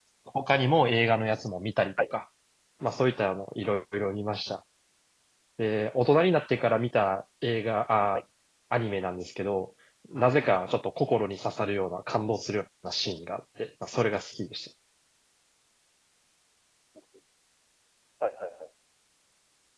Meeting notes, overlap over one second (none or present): none